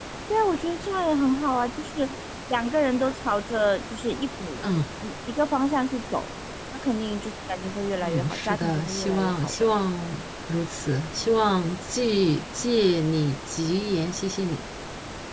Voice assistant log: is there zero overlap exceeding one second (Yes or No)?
No